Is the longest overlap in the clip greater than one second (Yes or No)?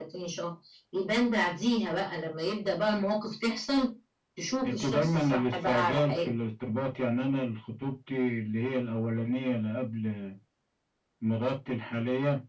Yes